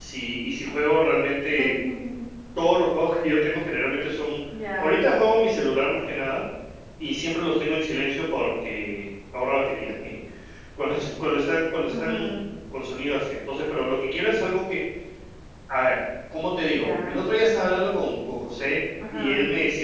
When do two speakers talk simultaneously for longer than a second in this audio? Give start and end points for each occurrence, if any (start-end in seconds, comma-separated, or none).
none